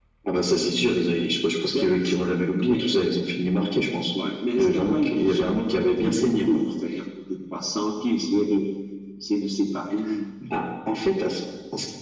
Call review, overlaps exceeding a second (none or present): present